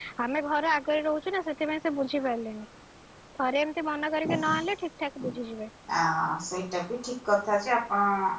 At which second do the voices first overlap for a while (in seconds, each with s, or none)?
none